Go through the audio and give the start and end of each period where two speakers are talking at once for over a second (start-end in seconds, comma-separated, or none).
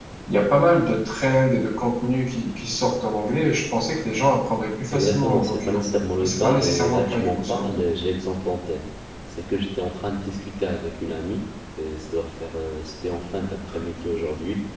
4.9-7.8